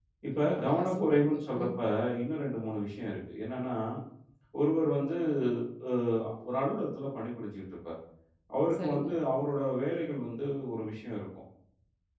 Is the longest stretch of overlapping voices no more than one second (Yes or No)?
No